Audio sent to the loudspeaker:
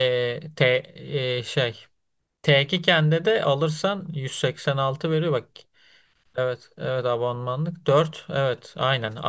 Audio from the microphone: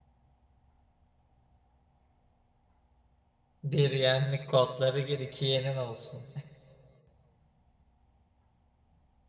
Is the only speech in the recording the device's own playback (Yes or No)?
No